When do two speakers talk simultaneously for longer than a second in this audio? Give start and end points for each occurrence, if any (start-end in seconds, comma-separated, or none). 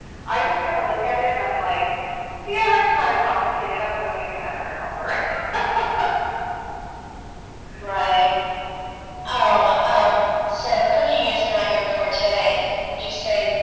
none